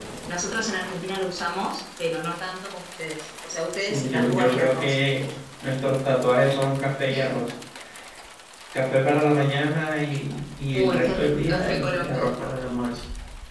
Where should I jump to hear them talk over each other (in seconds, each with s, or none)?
3.8 s